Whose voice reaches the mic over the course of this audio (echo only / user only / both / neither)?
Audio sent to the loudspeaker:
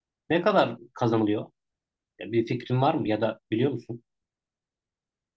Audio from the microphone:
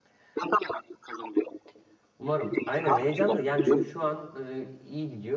both